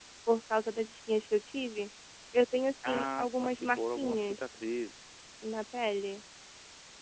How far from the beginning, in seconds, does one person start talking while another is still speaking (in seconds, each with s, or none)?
2.8 s